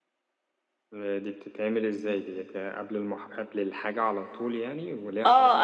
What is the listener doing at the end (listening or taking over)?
taking over